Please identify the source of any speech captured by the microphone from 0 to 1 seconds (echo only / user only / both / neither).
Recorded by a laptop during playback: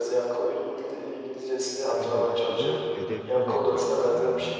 echo only